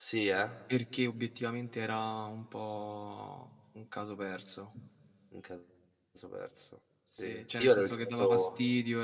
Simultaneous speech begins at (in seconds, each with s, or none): 7.1 s